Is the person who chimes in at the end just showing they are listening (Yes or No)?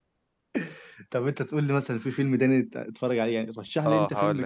No